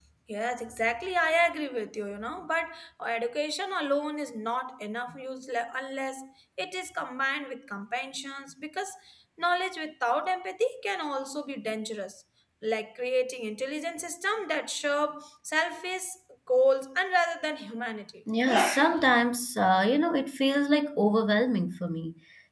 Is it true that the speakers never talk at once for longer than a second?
Yes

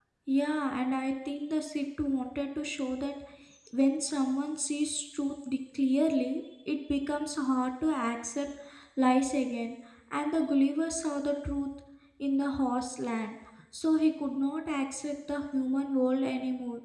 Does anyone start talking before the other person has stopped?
No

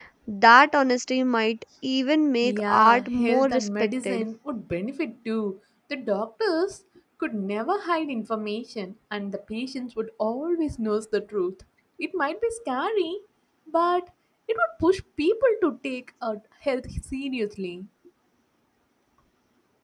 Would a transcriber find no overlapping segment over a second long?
No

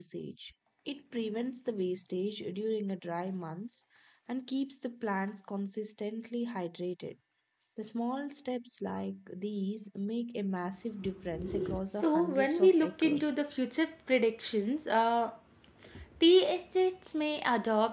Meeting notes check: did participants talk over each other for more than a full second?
Yes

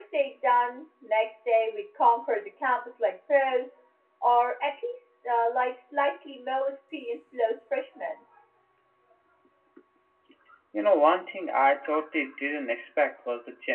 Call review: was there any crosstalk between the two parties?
No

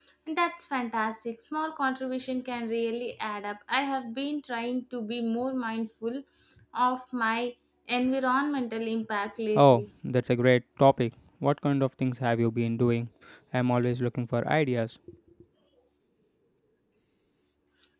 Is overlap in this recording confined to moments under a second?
Yes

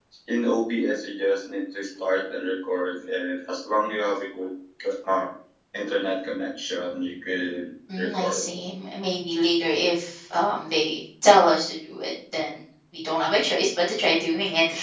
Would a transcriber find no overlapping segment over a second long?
Yes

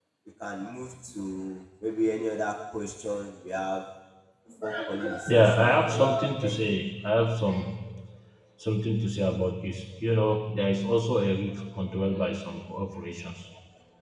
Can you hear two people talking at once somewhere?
Yes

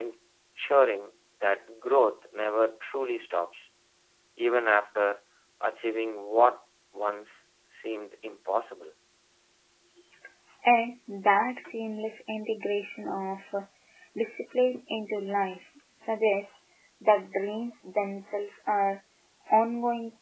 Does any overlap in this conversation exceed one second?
No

